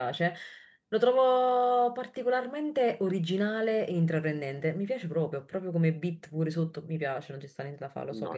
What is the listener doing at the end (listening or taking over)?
taking over